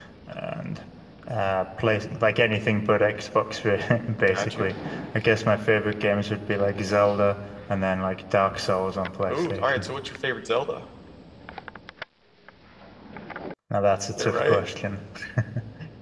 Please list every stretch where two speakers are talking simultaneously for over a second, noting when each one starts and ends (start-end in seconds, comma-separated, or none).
none